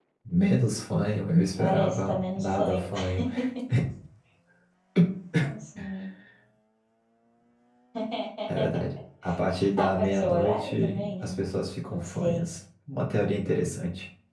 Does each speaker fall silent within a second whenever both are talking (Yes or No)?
No